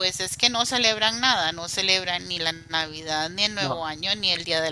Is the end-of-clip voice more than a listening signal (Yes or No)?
No